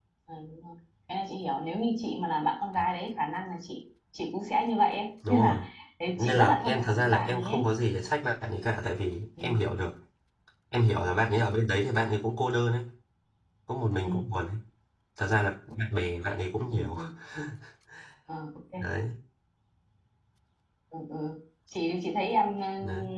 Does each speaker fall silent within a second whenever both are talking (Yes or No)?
No